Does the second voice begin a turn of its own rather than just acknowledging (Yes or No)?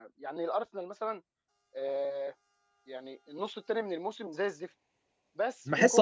Yes